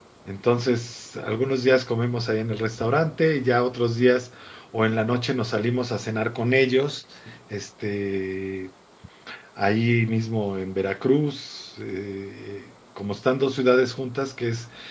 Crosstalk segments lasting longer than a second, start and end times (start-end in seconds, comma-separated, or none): none